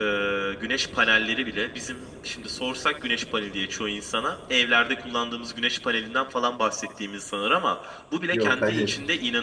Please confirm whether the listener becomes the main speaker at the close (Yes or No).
No